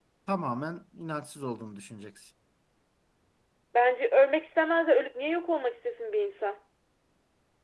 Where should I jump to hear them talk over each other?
none

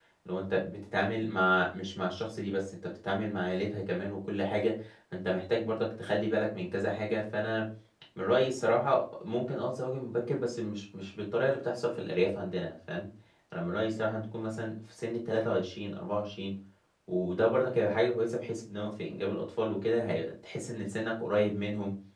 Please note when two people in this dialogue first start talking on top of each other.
none

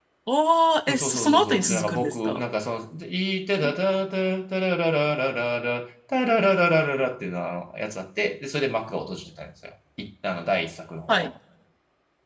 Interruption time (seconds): 0.9 s

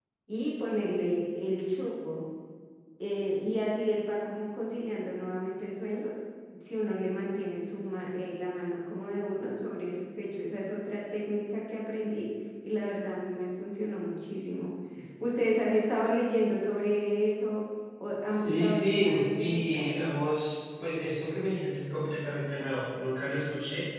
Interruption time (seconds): 18.3 s

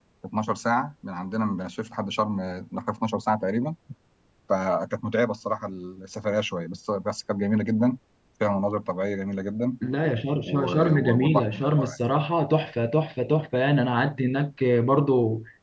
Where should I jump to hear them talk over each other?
10.4 s

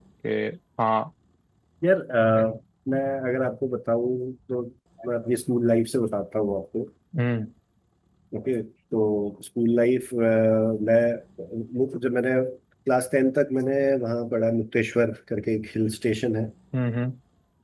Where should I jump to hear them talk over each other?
none

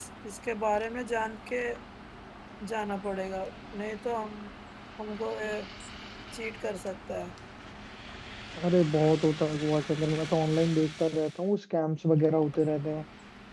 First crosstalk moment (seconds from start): none

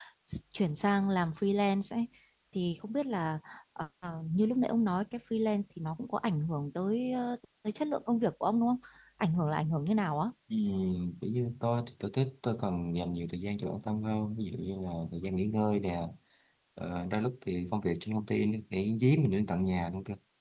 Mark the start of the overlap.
none

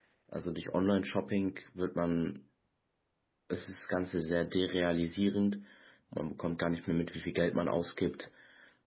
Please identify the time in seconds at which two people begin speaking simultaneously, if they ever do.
none

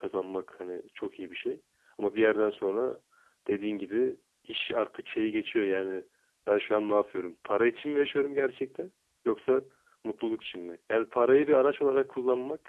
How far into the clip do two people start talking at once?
none

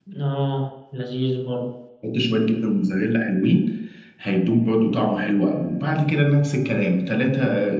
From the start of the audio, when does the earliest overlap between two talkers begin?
none

